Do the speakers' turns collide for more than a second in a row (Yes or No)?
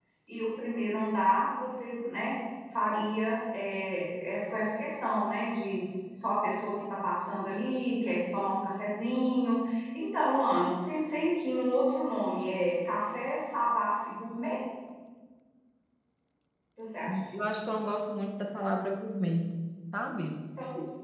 No